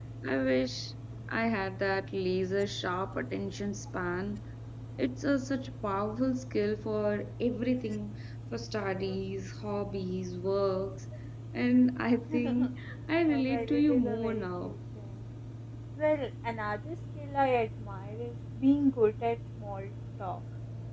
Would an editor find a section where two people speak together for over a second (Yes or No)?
Yes